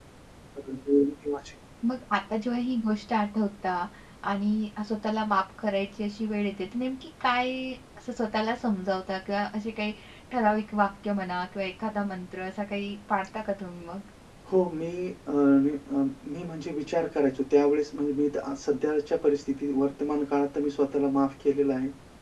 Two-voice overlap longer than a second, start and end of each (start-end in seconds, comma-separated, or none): none